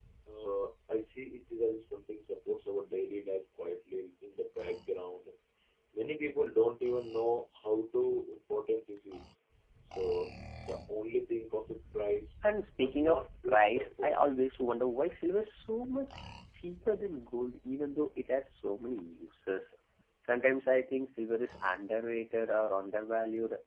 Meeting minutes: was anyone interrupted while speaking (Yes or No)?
Yes